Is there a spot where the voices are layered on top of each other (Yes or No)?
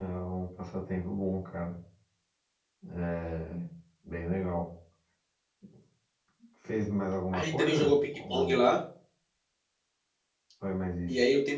Yes